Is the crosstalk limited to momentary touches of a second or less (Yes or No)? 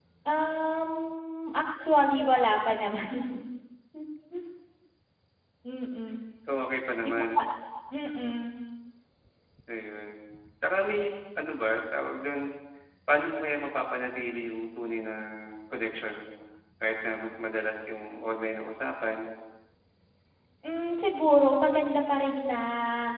Yes